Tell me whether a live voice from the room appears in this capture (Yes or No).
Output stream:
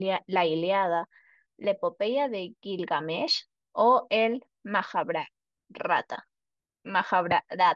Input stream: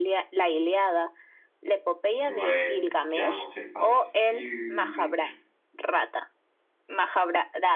Yes